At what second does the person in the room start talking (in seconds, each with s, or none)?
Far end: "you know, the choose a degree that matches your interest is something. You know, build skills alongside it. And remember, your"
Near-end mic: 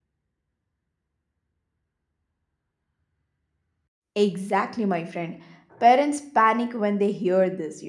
4.2 s